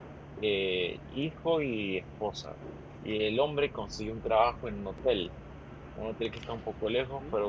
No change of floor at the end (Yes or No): Yes